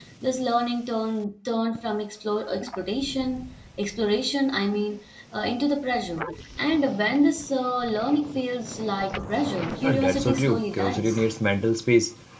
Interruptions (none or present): present